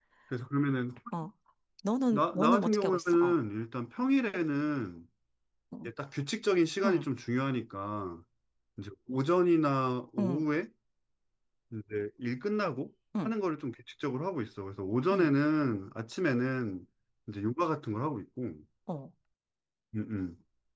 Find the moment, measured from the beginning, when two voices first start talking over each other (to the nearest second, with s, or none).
2 s